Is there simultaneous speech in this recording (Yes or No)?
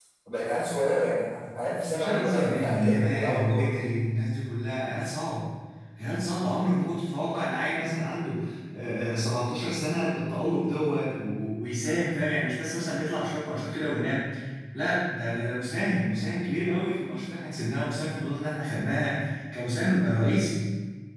Yes